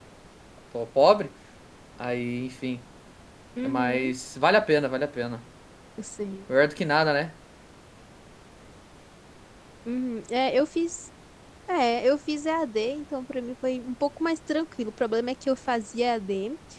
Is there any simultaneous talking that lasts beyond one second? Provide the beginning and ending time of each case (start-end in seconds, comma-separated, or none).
none